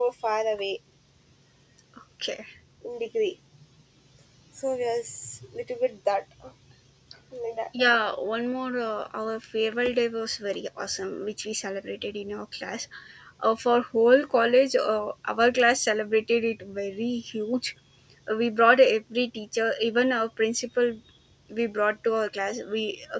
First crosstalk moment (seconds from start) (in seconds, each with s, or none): none